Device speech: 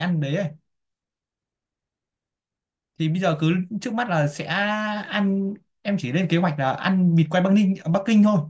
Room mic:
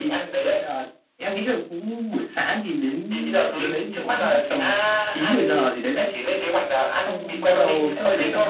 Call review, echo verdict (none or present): present